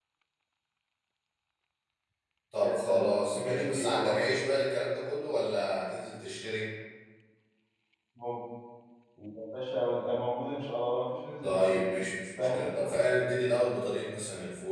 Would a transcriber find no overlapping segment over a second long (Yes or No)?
No